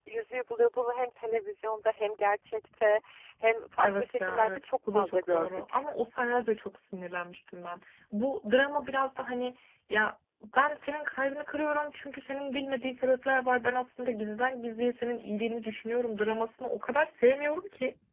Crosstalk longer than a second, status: present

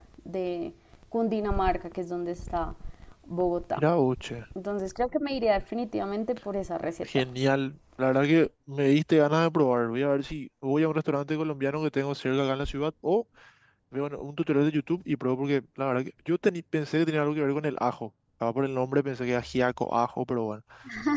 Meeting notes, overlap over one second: none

